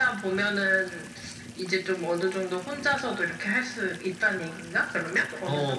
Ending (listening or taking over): taking over